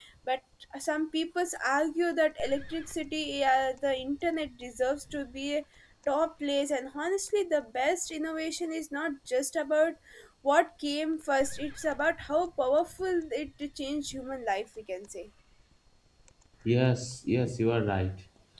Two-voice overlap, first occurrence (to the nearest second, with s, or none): none